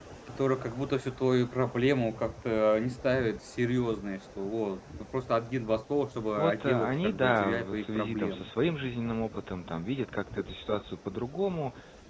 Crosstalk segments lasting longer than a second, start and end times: 6.4-8.4

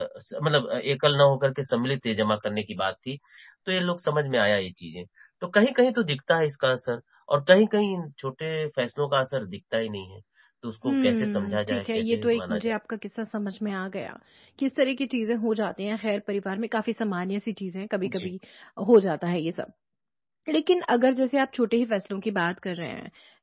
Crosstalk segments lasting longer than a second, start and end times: 10.8-12.8

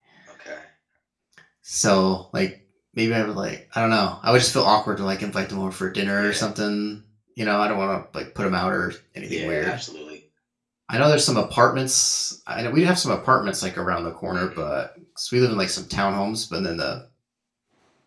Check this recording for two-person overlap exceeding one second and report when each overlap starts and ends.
none

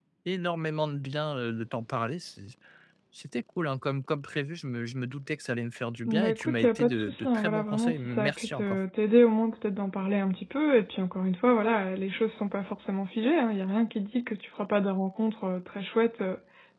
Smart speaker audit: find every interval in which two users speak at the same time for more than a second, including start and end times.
6.0-8.8

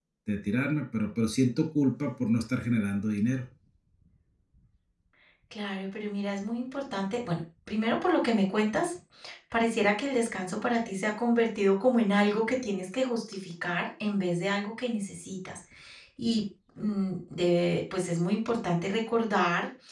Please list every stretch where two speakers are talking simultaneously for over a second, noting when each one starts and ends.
none

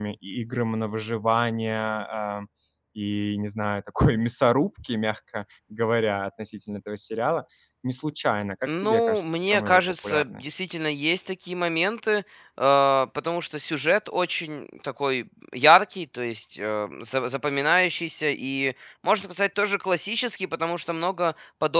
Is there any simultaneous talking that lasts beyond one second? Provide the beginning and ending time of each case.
8.7-10.5

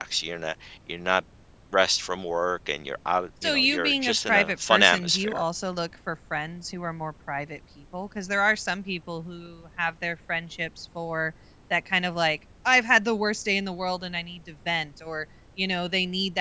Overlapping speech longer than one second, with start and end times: 3.4-5.4

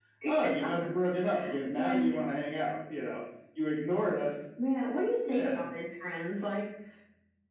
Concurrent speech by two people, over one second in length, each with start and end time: none

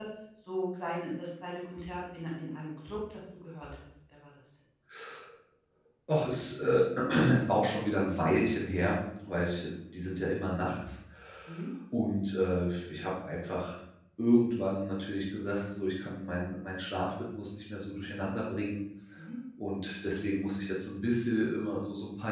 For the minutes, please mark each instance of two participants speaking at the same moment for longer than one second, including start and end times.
none

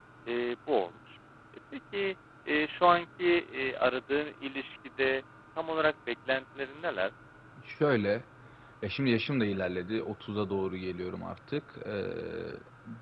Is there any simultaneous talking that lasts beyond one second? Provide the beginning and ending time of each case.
none

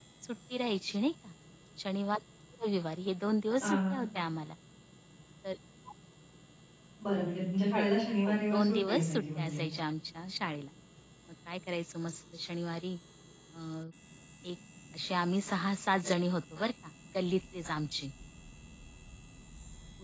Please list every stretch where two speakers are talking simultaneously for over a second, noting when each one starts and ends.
8.2-9.6

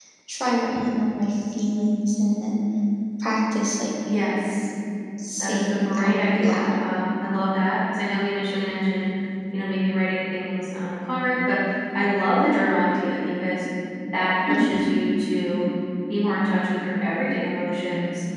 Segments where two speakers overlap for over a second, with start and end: 5.4-6.9

